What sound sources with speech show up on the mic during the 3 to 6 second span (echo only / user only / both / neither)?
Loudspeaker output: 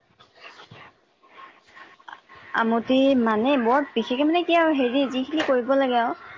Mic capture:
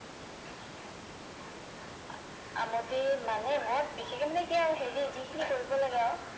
echo only